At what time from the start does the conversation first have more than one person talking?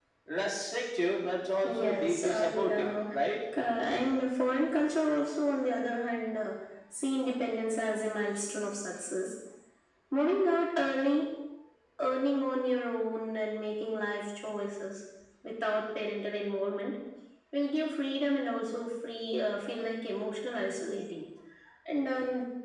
1.6 s

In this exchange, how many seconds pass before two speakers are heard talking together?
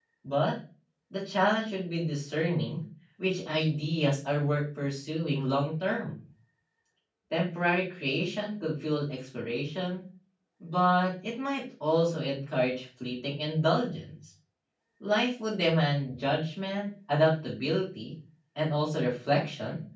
none

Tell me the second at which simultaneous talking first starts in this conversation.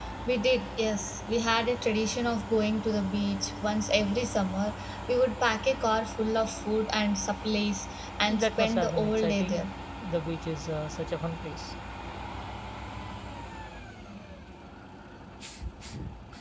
8.2 s

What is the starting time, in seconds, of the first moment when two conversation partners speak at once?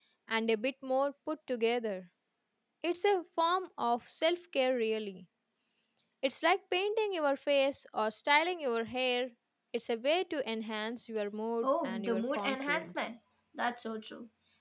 11.6 s

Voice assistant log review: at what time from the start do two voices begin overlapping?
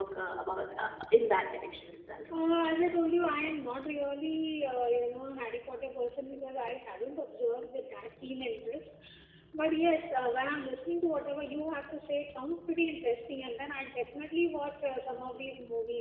none

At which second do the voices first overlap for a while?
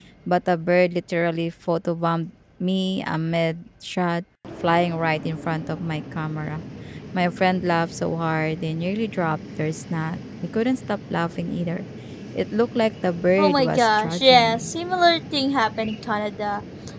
13.4 s

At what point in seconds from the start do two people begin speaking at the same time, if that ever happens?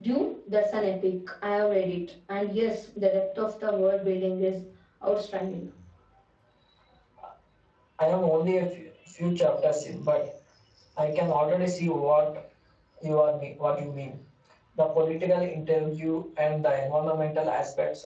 none

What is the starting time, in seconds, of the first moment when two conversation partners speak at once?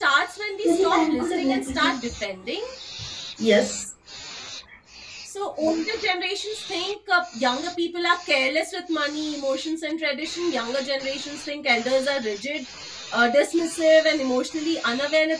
0.7 s

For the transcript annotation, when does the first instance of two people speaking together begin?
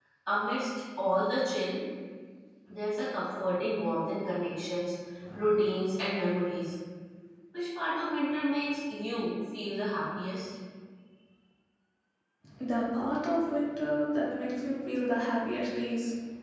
none

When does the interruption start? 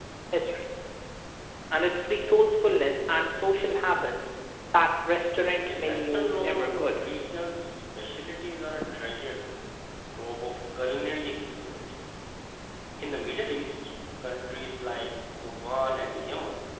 5.6 s

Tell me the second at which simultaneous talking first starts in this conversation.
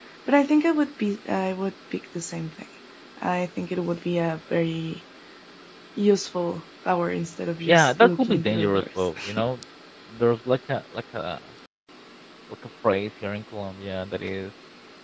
7.7 s

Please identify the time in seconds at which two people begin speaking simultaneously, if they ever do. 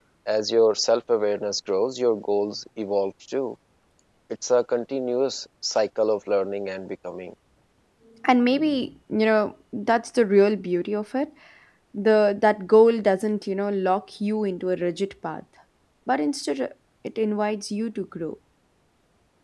none

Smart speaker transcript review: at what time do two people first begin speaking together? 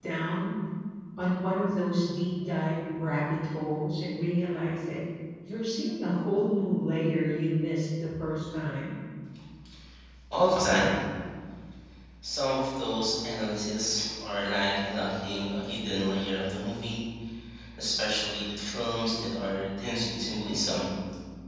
none

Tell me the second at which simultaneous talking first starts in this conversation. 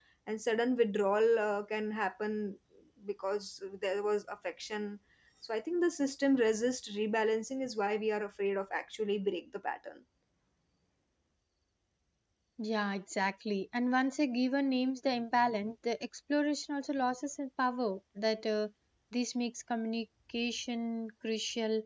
none

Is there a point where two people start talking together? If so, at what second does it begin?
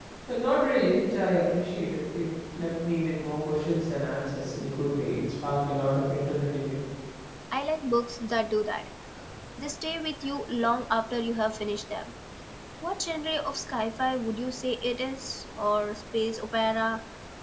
none

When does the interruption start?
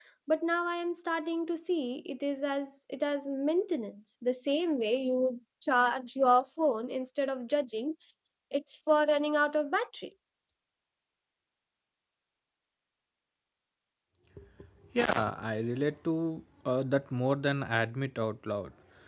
none

